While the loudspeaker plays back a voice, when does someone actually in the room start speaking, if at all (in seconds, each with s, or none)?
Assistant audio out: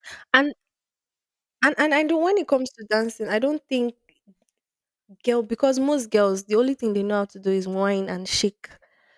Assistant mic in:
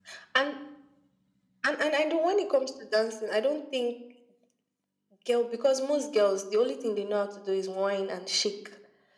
none